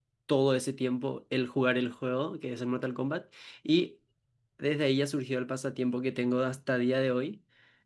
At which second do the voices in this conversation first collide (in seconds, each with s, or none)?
none